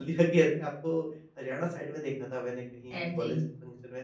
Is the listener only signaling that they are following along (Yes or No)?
Yes